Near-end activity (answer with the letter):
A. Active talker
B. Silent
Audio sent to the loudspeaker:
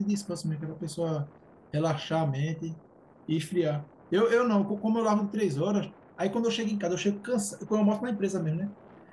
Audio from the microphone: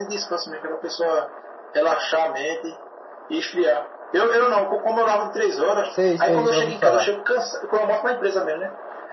A